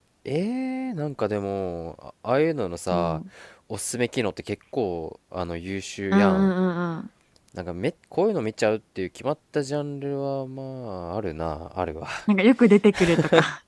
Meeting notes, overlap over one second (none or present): none